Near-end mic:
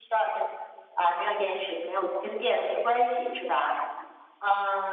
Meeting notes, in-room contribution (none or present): none